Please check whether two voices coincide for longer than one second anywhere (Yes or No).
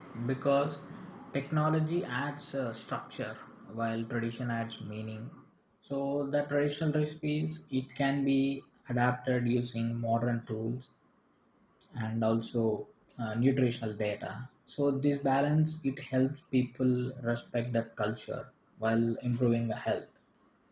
No